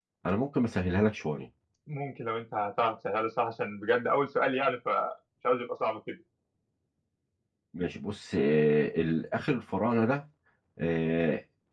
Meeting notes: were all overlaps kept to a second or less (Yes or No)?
Yes